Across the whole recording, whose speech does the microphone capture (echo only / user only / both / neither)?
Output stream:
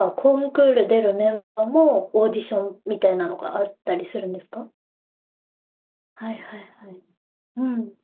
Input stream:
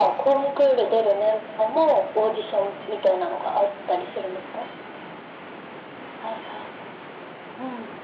echo only